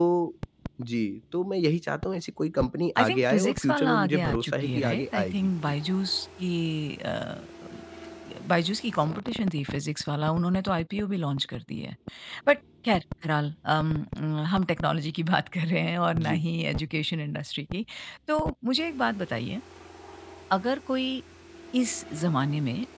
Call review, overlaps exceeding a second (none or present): present